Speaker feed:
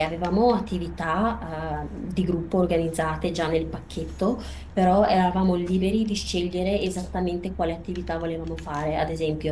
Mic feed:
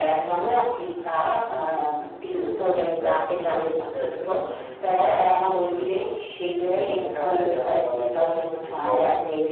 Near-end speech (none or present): present